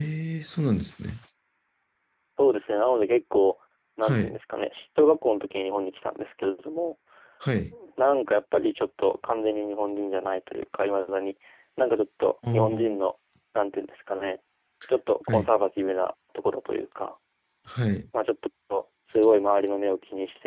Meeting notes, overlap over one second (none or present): none